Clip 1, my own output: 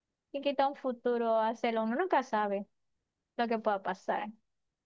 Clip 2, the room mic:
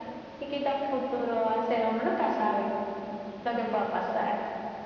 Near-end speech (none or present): none